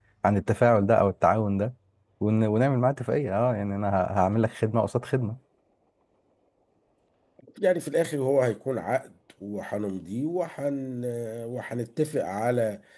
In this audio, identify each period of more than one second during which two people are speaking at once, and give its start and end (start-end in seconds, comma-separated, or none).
none